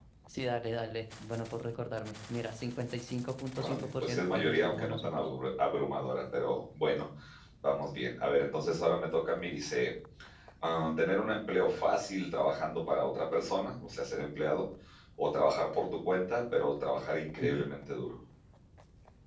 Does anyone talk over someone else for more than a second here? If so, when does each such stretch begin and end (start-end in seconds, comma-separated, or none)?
3.6-5.2